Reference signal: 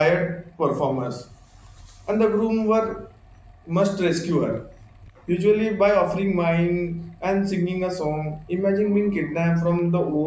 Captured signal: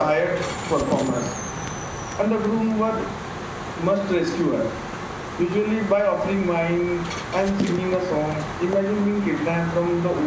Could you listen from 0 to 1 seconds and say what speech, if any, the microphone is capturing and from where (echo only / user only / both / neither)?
echo only